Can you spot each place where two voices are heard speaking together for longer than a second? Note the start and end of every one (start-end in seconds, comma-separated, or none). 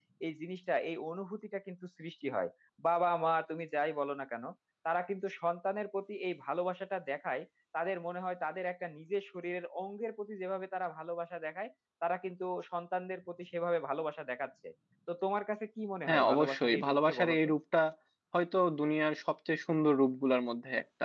16.1-17.5